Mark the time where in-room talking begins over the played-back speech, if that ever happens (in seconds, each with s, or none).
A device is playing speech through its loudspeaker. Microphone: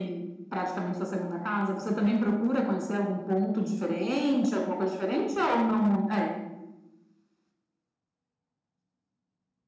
none